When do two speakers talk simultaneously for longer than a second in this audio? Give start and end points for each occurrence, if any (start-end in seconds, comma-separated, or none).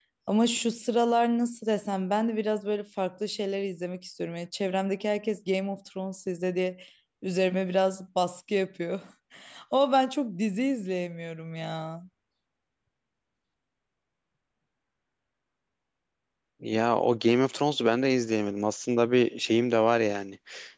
none